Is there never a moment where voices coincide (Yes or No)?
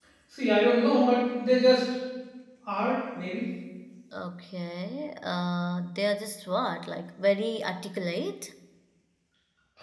Yes